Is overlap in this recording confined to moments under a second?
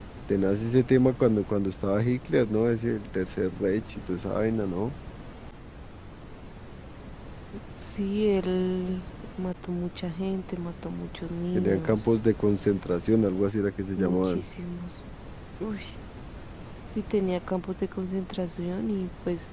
Yes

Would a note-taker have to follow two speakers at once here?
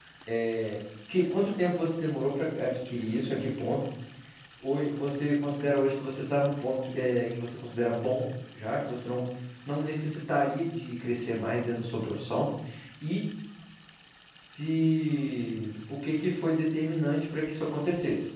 No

